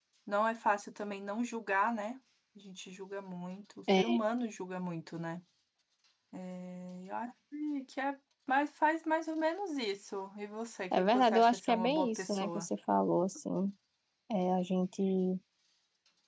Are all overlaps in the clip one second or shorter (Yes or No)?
No